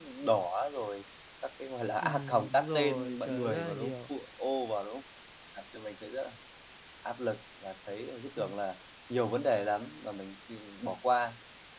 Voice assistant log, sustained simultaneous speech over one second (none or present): present